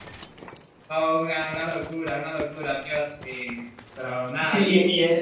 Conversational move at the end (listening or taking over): taking over